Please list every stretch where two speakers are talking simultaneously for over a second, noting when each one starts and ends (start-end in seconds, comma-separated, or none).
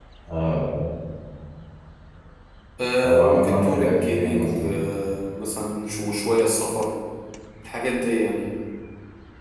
3.0-4.7